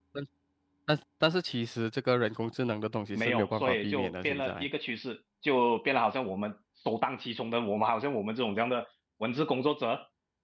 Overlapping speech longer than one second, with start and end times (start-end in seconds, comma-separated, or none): 3.2-4.7